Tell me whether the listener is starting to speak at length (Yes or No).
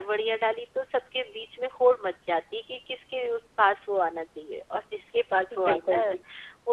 No